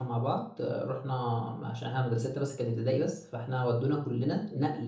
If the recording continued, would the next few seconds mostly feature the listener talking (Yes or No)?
No